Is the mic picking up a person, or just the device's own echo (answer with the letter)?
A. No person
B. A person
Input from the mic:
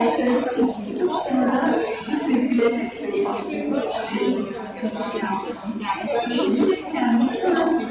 B